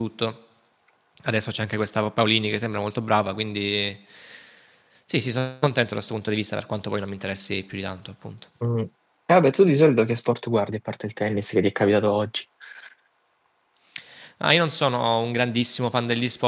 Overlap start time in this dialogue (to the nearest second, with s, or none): none